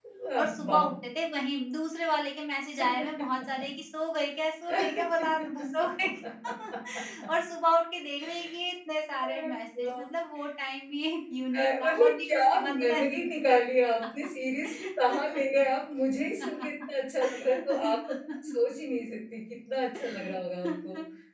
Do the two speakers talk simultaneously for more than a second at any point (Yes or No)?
Yes